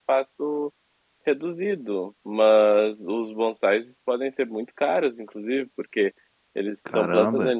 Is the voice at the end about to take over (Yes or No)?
No